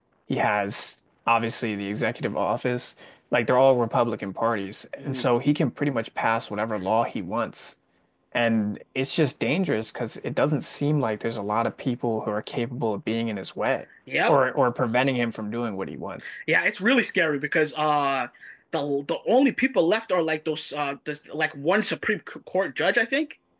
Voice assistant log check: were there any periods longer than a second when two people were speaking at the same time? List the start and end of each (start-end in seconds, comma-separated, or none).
none